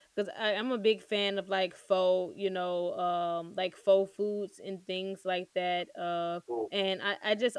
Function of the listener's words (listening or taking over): listening